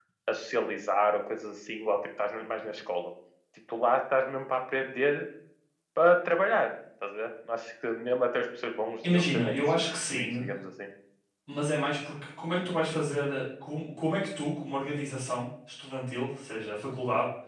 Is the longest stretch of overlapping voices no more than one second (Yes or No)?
No